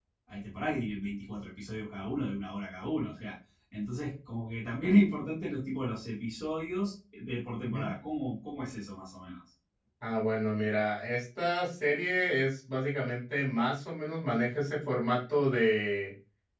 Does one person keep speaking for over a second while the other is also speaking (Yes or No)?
No